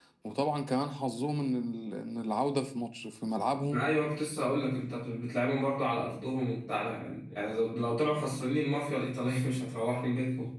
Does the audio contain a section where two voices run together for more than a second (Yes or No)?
No